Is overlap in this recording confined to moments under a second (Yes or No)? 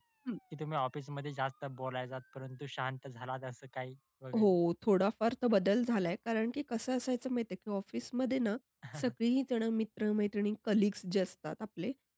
Yes